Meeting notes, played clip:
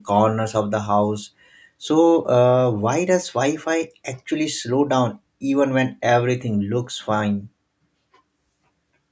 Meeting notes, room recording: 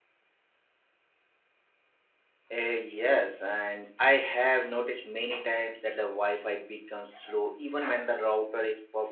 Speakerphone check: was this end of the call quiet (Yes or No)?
No